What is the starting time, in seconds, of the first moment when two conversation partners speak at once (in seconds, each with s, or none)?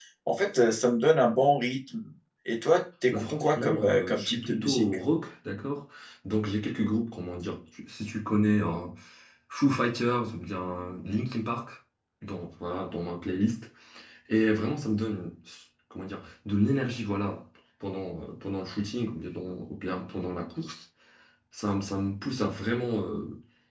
3.1 s